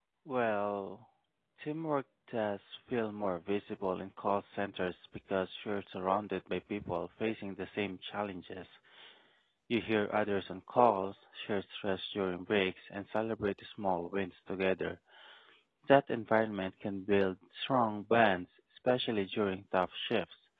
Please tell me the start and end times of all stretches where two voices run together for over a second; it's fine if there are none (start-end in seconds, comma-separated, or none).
none